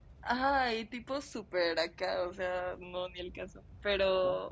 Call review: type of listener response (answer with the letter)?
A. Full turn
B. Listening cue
B